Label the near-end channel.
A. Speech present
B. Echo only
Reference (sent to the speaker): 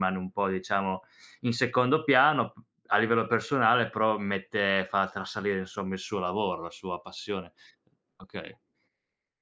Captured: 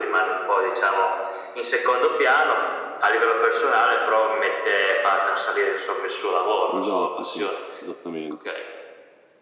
A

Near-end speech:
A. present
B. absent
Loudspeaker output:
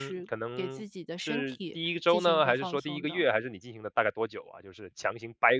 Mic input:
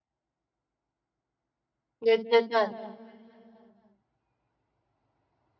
A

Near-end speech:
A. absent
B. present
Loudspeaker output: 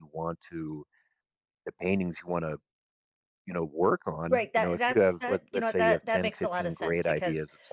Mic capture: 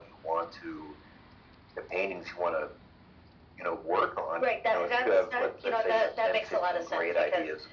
A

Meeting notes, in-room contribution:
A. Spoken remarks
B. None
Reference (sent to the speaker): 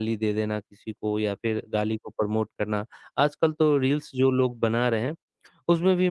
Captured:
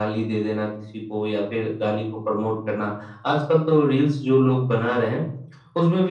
B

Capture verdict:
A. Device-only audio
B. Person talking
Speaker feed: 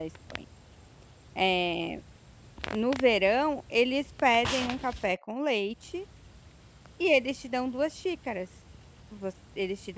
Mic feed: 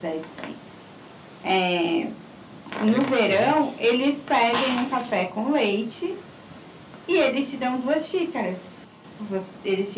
B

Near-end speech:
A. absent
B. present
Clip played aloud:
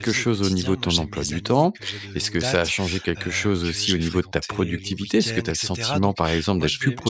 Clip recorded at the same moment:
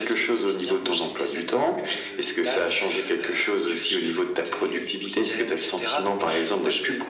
A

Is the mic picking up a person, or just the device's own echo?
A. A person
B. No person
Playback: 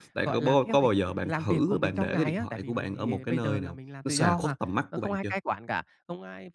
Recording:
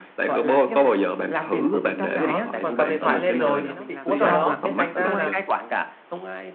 A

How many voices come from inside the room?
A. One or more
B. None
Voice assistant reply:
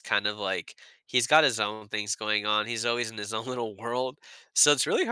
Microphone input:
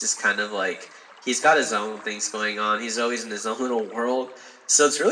B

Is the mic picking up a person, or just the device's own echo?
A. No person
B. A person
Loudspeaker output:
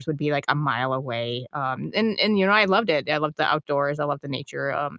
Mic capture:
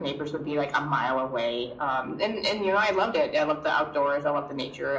A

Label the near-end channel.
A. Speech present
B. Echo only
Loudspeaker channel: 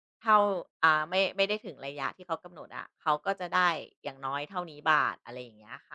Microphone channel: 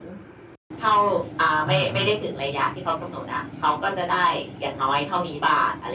A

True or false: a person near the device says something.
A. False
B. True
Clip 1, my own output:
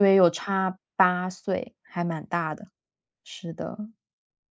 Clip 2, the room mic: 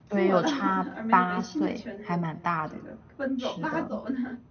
B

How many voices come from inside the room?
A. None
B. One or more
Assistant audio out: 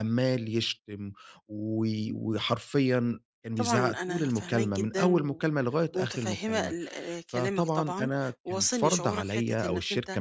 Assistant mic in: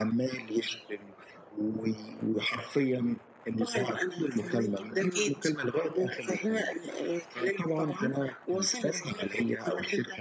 B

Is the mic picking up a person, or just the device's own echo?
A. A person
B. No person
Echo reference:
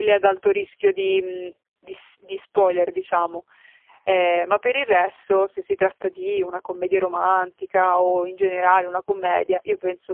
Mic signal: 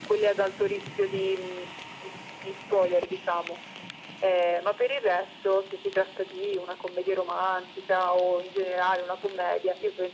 B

